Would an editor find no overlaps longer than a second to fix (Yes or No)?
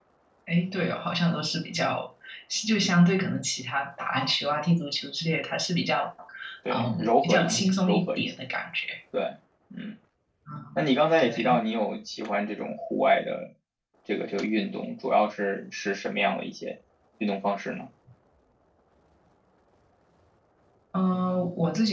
No